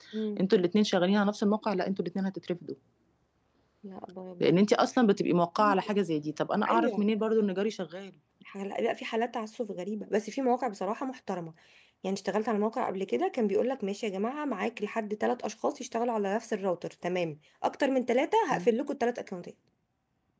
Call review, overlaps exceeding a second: none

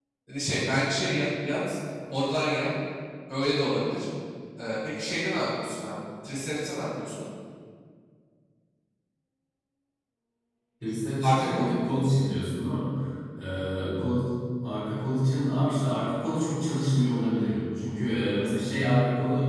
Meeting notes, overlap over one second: none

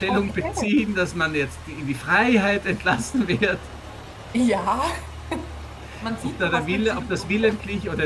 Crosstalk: present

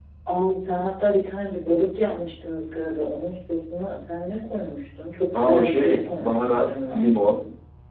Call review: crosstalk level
present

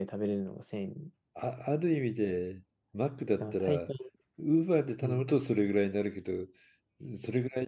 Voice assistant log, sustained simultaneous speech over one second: none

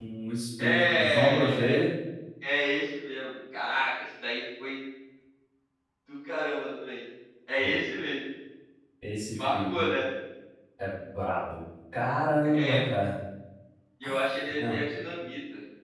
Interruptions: present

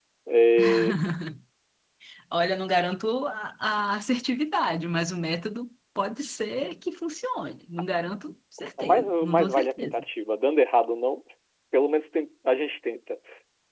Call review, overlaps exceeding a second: present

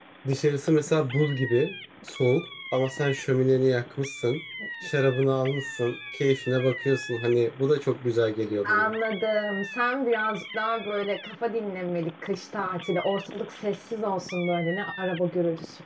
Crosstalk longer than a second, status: none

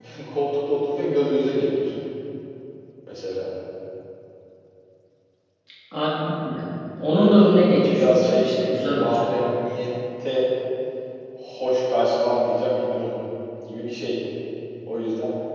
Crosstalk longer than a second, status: present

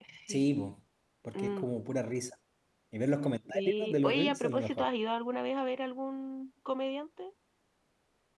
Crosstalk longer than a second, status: present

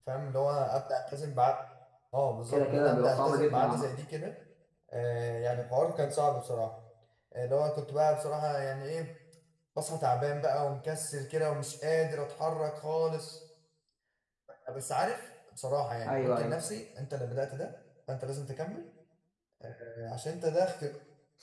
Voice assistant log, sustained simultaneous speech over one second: present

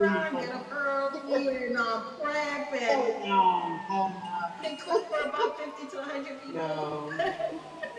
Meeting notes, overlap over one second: none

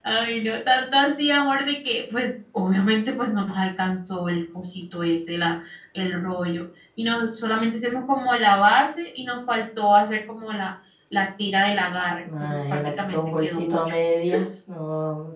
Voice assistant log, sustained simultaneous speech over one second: present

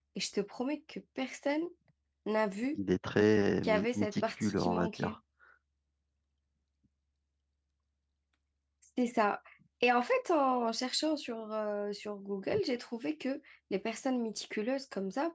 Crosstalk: present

